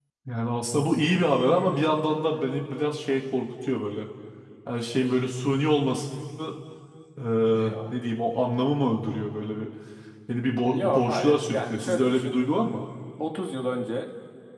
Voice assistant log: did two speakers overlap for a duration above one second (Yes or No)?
Yes